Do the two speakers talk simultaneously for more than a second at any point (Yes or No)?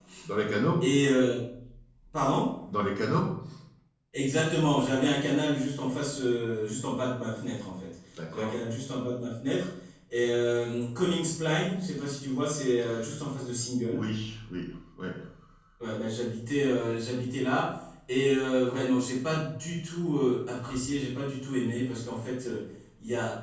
No